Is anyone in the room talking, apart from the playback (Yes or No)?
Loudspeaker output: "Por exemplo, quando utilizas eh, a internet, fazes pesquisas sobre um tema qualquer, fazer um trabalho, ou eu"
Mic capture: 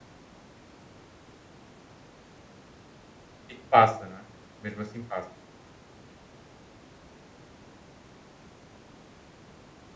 Yes